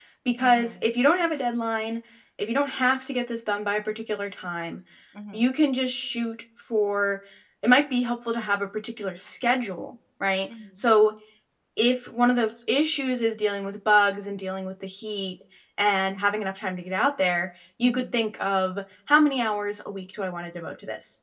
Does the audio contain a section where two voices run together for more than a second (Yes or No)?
No